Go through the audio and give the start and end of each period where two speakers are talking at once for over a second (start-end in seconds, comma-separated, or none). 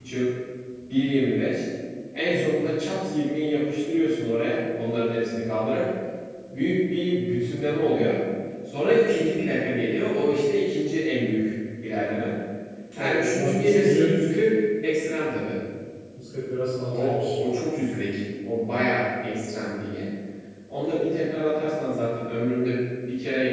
12.9-14.2